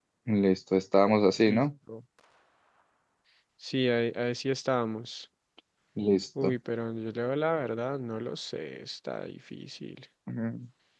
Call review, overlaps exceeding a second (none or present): none